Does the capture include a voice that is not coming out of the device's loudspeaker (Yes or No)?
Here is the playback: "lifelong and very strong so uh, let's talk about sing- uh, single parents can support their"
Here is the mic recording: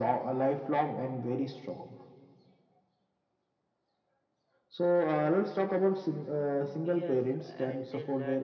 Yes